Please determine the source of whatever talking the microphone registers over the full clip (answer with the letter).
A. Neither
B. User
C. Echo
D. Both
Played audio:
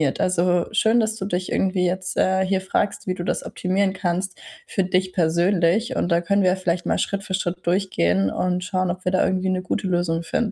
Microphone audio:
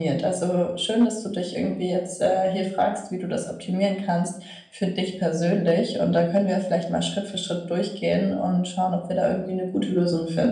C